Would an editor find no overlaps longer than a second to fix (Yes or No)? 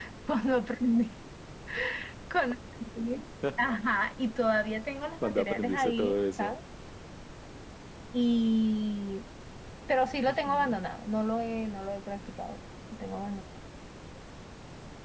No